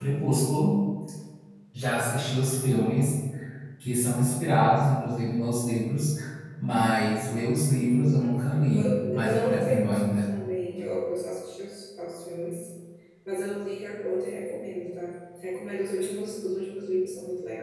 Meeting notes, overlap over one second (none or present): present